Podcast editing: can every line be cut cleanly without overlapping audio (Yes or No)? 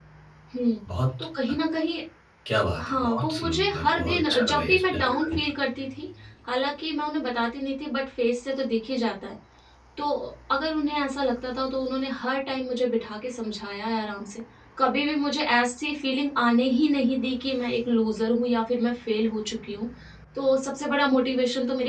No